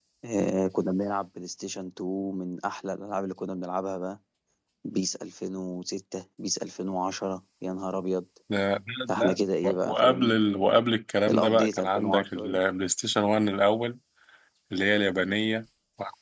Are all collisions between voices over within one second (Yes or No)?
No